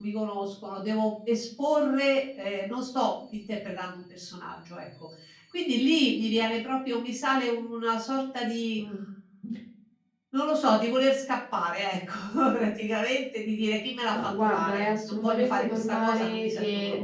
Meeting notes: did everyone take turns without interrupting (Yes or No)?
No